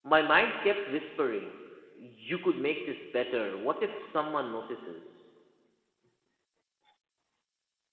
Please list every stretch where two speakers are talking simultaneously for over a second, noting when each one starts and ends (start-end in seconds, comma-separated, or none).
none